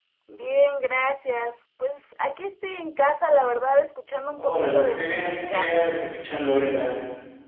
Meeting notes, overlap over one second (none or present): present